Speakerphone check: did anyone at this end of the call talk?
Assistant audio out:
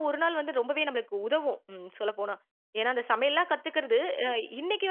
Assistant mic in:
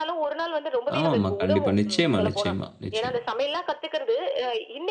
Yes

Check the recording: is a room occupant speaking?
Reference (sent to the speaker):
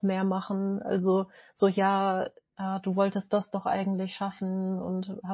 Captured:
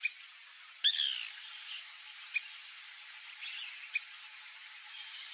No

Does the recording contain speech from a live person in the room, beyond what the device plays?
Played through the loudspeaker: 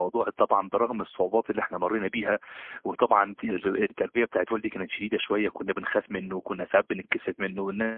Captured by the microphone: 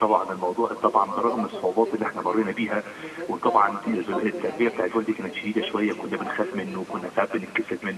Yes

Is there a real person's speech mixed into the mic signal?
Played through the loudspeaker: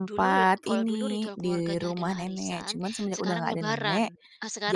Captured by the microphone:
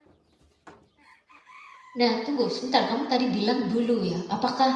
Yes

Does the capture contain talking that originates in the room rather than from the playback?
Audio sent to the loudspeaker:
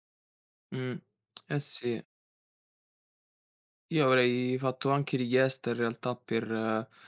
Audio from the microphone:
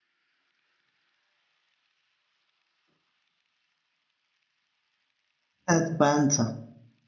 Yes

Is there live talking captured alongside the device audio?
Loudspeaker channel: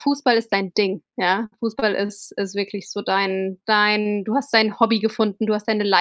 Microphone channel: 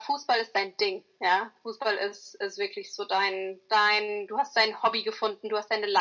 No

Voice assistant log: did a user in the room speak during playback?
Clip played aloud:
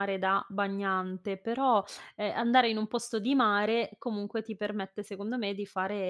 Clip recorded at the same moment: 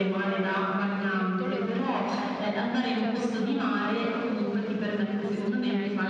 Yes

